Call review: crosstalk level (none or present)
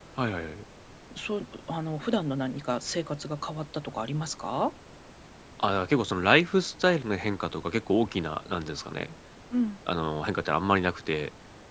none